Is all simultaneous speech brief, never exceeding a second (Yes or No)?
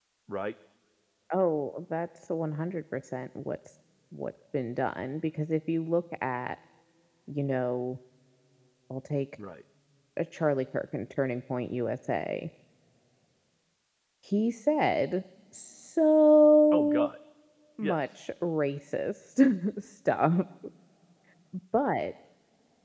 Yes